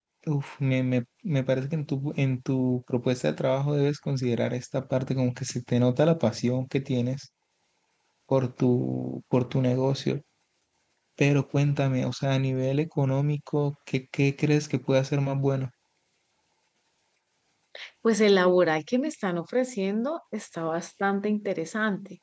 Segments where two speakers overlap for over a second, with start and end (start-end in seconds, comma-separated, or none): none